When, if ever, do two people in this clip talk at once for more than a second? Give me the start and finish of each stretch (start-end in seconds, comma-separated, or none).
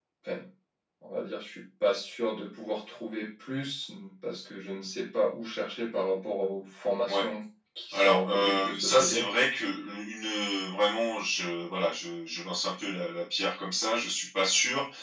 7.9-9.2